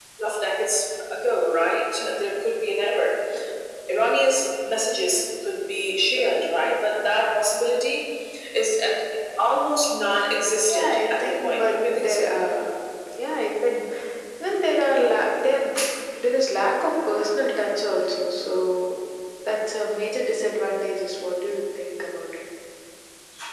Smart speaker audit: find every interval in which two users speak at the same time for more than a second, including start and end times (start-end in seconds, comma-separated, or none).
10.7-12.3